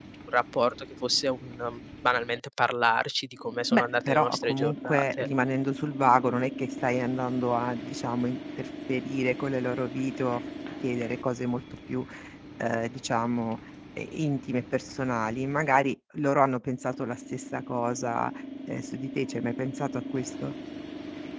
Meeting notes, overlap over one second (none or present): present